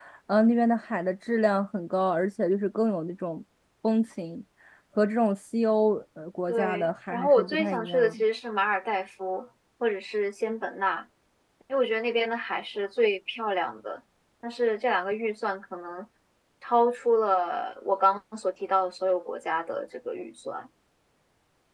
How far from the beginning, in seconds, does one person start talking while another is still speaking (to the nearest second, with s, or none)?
6 s